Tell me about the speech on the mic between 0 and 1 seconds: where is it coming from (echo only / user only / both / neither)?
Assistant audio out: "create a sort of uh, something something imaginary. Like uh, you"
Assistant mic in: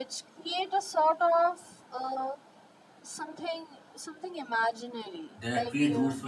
echo only